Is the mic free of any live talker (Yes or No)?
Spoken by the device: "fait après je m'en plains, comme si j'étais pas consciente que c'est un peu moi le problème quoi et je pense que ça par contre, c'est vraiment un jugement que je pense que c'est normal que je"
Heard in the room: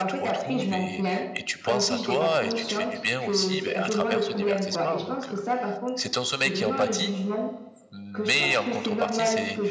No